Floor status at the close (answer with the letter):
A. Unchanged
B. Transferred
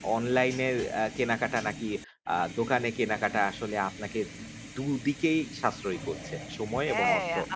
B